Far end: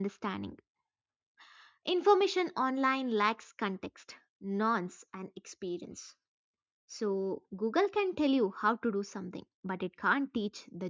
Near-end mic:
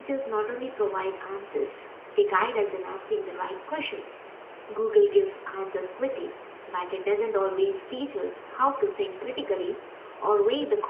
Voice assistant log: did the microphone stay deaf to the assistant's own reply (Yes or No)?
Yes